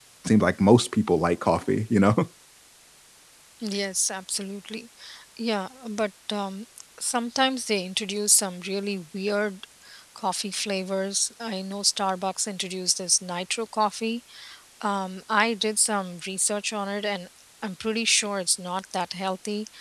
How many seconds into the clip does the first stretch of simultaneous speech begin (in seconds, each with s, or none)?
none